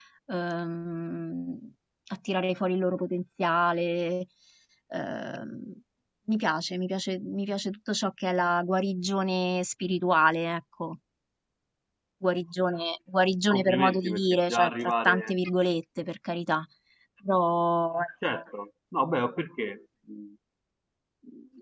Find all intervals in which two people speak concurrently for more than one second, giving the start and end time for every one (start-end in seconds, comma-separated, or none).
13.5-15.4